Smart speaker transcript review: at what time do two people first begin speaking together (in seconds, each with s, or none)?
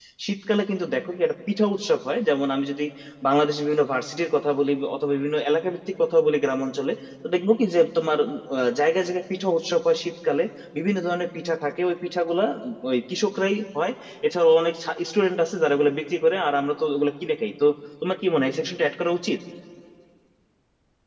none